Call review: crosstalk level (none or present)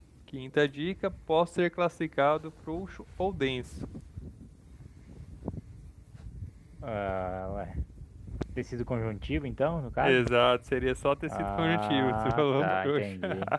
present